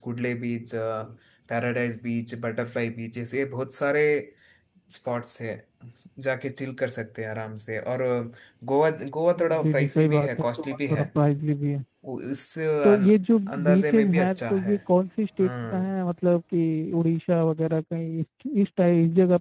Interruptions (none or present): present